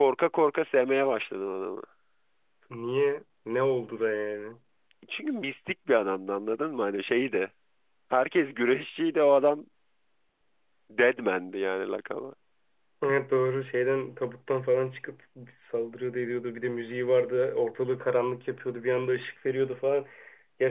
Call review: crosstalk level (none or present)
none